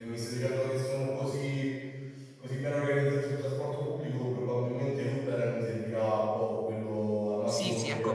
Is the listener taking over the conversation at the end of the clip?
Yes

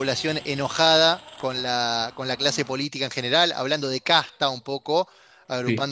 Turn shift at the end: No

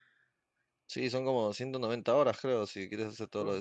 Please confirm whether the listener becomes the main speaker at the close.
Yes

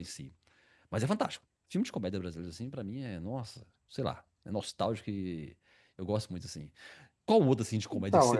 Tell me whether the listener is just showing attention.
Yes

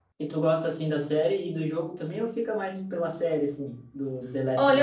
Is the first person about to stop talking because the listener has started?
Yes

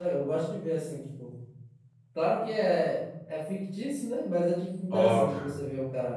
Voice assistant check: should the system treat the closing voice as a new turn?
No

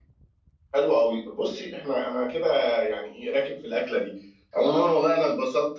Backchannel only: Yes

